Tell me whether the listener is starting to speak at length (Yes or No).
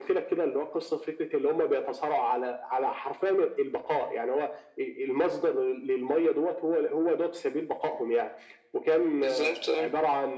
No